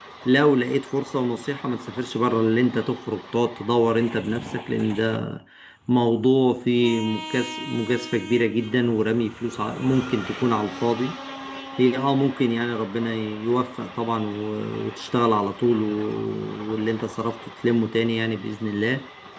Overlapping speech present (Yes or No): No